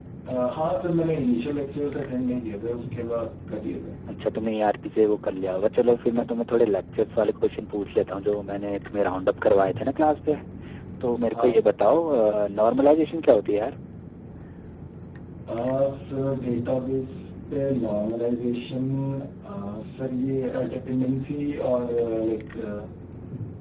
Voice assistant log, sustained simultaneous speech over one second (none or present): none